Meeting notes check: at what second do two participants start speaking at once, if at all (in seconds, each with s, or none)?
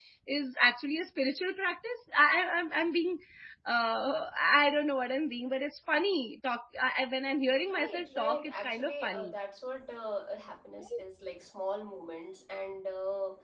7.6 s